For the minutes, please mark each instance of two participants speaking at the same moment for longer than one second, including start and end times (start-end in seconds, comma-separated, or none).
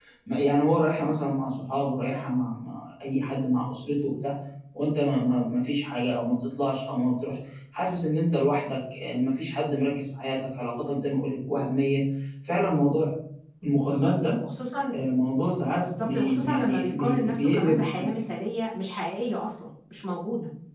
15.8-18.1